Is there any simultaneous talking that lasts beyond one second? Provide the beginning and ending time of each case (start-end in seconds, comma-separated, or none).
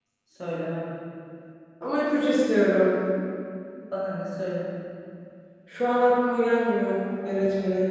none